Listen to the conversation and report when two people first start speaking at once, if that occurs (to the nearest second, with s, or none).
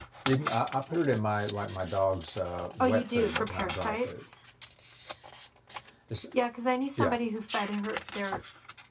3 s